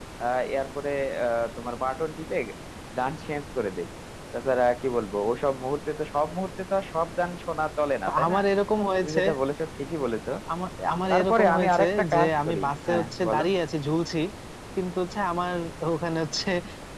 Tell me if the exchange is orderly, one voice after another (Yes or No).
No